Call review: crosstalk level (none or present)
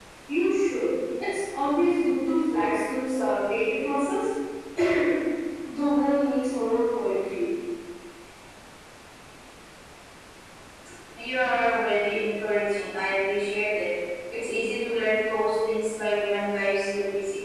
none